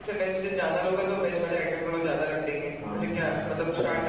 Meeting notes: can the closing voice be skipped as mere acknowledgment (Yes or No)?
No